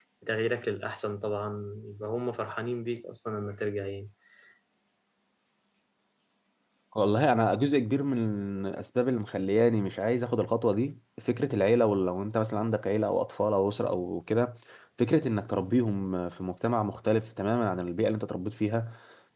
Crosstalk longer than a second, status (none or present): none